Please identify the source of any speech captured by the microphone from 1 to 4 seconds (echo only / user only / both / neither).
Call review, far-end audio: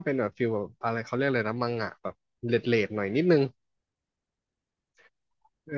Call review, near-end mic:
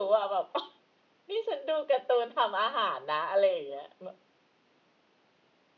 user only